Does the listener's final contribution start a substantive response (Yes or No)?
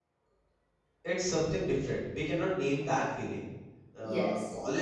No